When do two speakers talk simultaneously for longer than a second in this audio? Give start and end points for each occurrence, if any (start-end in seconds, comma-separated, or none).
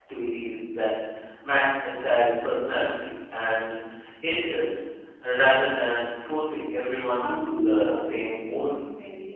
7.1-8.7